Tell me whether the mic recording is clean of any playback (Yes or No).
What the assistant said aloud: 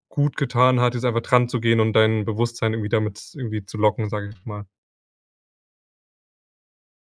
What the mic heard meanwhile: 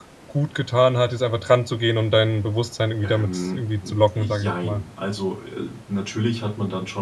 No